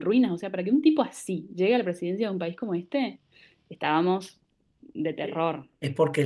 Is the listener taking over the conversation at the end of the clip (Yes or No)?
Yes